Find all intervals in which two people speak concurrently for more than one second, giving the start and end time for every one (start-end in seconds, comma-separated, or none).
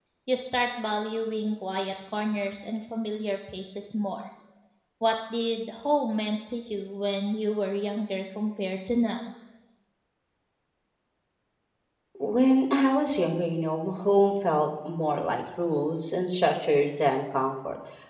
none